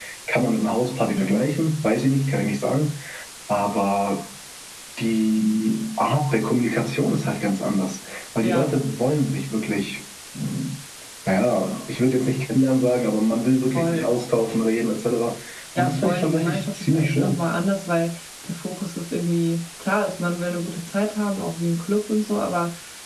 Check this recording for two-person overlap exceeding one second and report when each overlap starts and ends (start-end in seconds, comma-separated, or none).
15.8-17.4